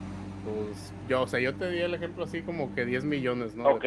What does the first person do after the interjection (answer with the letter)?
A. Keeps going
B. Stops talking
B